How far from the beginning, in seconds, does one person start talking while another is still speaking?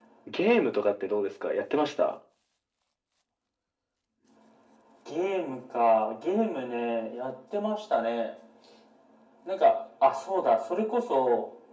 none

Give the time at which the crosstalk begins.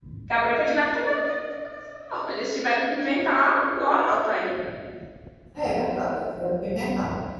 none

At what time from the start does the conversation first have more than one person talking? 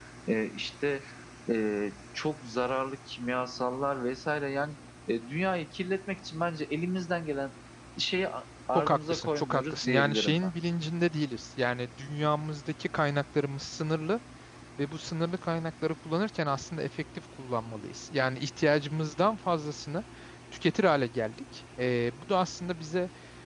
8.8 s

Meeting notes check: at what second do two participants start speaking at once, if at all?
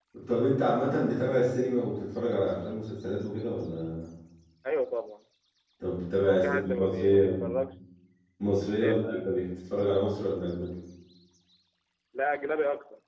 6.2 s

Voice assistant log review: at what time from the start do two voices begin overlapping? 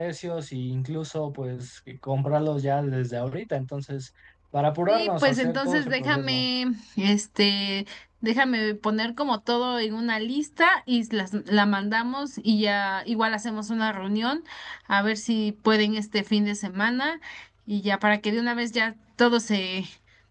4.9 s

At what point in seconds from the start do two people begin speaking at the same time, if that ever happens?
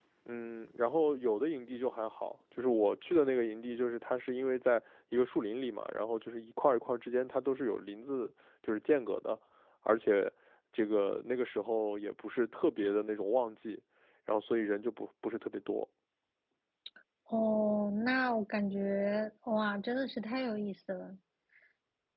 none

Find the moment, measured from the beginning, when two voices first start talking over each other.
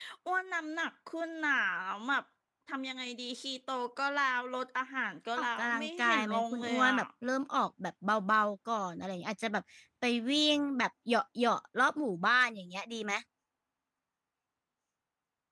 5.4 s

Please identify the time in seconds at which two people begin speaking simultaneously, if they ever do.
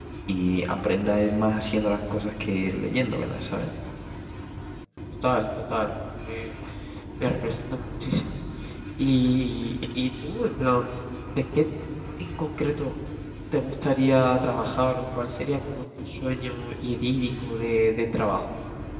none

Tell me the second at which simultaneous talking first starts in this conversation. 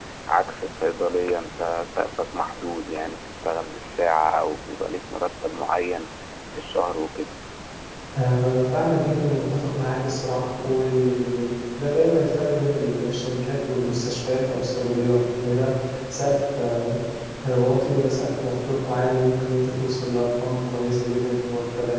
none

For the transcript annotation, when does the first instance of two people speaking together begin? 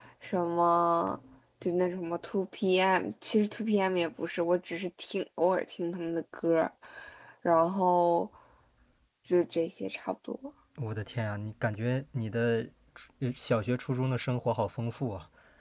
none

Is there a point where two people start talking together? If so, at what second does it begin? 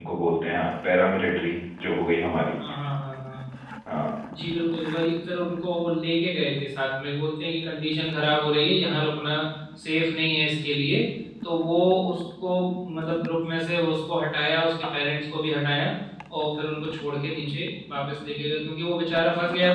none

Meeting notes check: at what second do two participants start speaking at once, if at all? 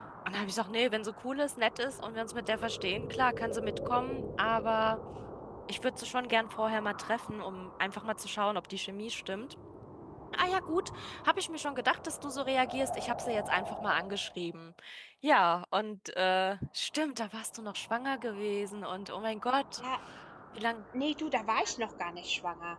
none

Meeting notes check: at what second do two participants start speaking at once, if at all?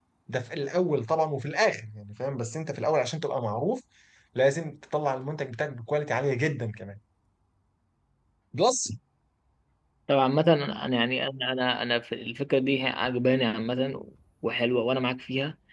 none

